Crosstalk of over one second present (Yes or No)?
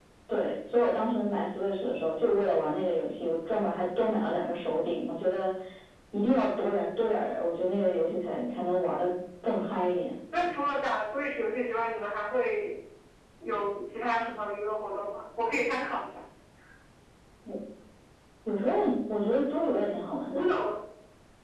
No